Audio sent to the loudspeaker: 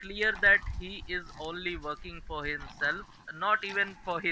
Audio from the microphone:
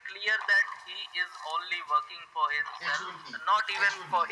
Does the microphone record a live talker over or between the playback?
Yes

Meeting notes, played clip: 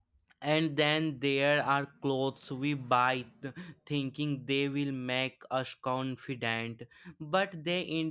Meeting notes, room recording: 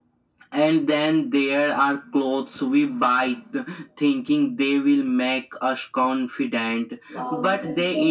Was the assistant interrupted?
Yes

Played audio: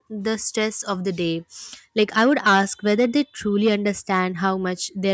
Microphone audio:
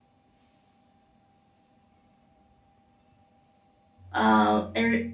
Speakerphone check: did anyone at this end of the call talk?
Yes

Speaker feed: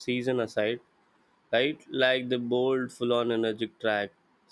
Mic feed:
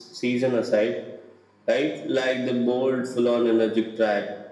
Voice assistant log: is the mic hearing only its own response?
Yes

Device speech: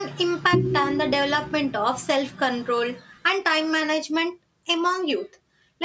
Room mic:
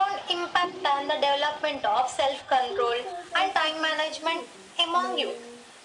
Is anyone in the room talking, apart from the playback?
Yes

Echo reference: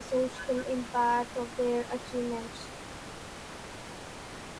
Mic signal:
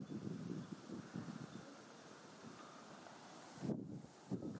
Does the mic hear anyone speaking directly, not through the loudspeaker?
No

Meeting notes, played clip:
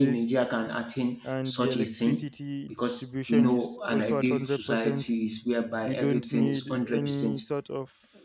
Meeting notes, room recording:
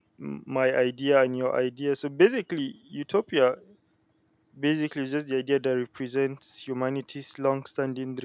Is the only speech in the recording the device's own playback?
No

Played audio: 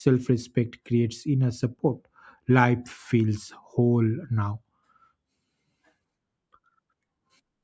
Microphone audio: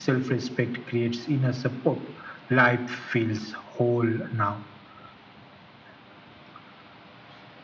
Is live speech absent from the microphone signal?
Yes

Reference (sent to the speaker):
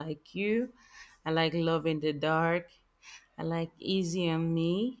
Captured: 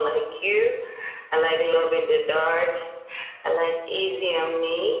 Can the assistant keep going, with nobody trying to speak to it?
Yes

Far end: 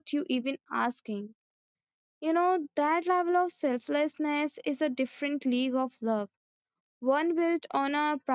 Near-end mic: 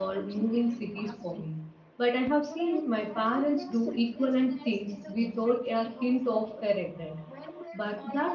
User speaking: Yes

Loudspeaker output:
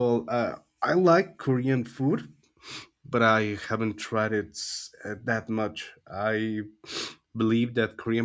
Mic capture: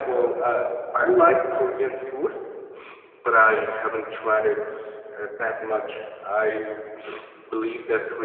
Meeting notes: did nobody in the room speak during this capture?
Yes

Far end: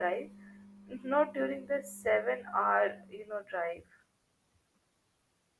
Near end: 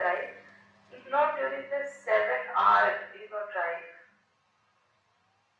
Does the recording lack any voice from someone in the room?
Yes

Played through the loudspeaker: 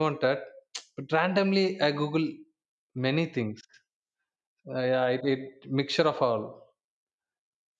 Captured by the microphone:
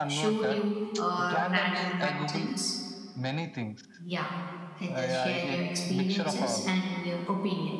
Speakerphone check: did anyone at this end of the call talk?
Yes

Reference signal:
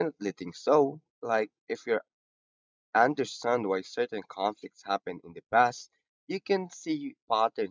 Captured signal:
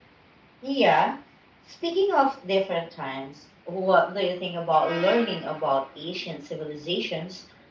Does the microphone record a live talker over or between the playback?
Yes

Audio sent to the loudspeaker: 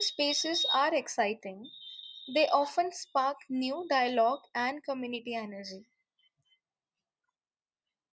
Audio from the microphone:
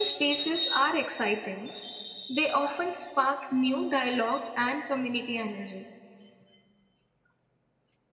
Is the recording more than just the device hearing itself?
No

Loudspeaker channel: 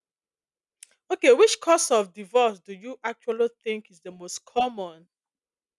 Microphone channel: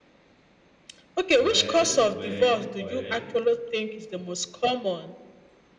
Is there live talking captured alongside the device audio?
Yes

